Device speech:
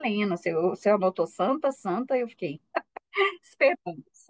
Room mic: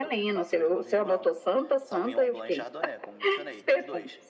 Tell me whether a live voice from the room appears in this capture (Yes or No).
Yes